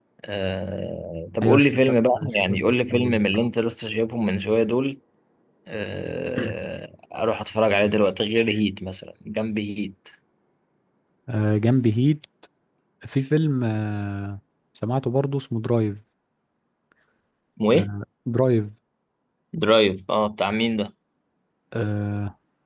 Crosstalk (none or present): present